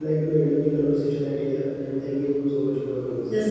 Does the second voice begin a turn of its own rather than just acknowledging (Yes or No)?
Yes